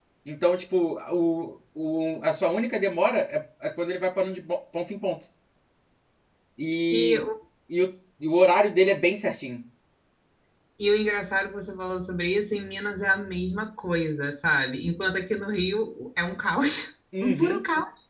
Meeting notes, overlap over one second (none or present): none